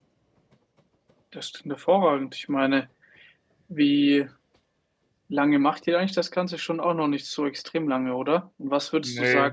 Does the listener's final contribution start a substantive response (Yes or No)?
No